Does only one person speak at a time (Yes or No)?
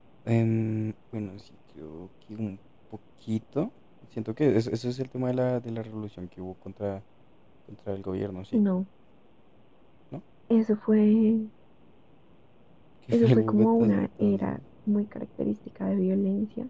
No